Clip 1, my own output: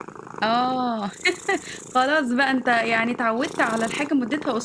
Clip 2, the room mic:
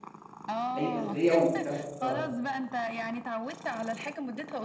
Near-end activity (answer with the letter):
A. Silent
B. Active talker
B